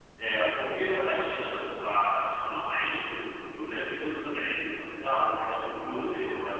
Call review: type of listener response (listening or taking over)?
listening